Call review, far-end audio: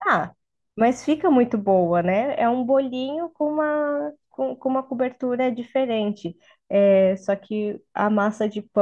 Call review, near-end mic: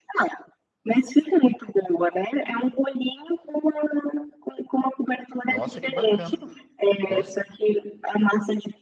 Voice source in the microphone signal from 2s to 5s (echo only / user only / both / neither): echo only